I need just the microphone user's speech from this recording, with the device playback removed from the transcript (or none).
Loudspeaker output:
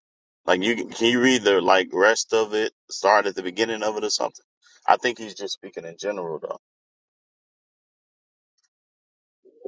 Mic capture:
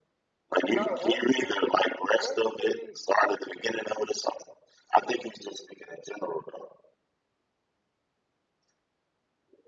No, actually, actually,